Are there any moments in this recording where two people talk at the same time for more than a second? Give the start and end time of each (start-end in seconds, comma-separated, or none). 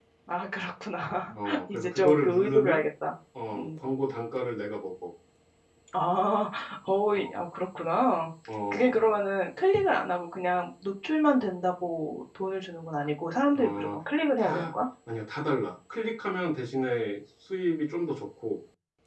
1.4-2.8